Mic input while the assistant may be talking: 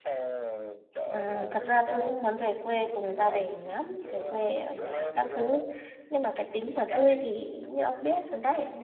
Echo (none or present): present